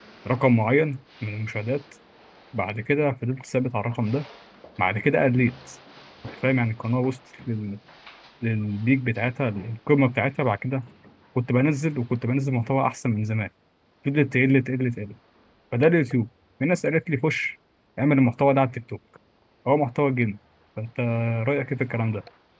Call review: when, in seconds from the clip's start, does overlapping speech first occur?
none

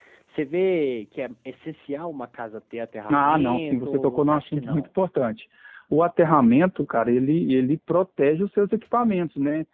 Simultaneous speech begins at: 3.1 s

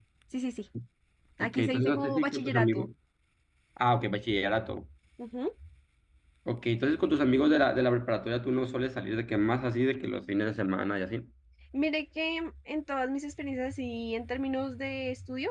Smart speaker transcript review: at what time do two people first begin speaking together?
1.4 s

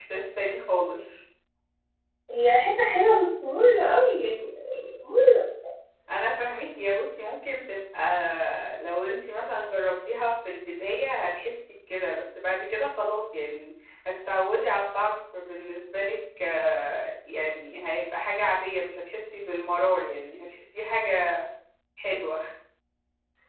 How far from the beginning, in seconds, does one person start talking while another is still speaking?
none

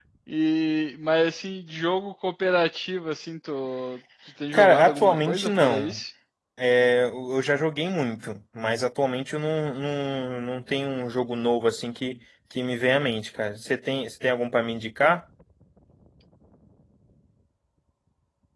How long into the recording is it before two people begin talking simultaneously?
4.5 s

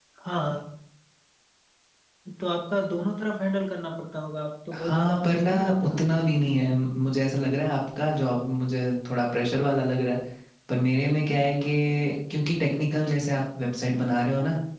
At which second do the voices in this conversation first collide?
4.7 s

